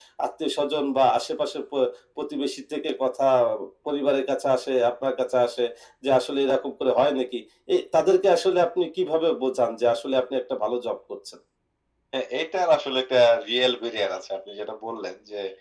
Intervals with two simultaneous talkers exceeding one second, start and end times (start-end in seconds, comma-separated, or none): none